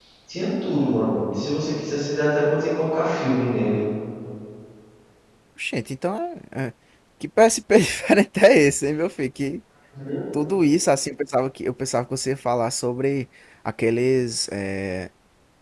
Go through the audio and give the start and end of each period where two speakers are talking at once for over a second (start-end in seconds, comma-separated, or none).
none